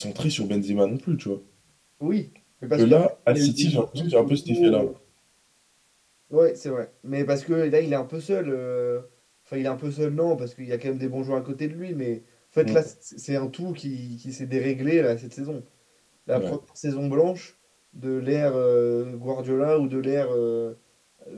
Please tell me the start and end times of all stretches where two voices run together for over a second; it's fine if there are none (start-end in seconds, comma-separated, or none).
2.8-4.9